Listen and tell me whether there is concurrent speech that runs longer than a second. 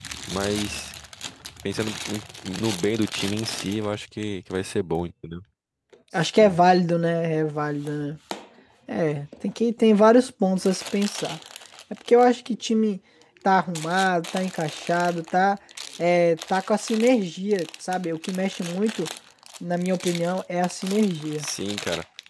No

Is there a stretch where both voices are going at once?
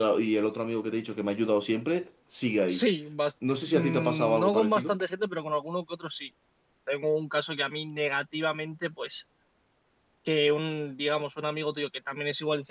Yes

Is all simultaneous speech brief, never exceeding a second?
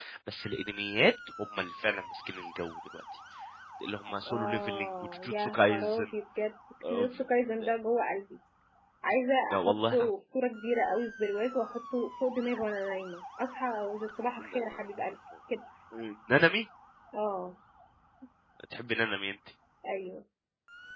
No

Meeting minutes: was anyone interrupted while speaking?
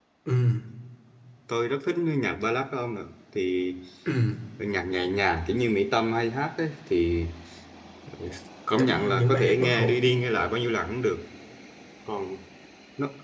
Yes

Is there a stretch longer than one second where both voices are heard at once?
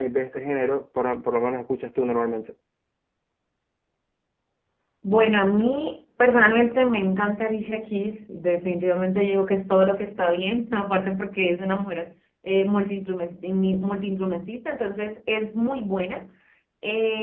No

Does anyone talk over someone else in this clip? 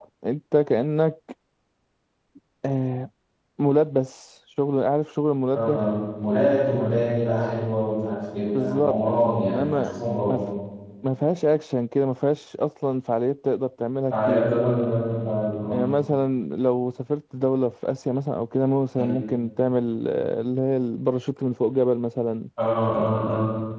Yes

